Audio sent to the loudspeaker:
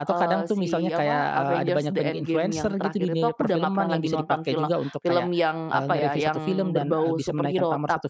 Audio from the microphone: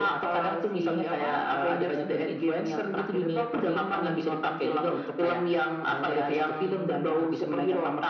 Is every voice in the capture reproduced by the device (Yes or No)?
Yes